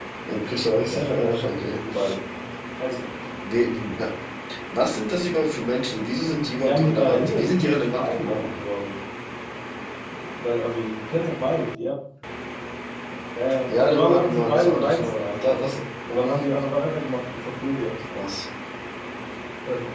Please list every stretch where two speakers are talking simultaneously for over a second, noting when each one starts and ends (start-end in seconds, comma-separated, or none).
6.6-8.5, 13.8-15.7